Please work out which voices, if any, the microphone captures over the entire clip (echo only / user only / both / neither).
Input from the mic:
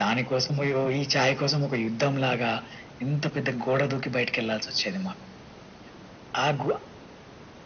echo only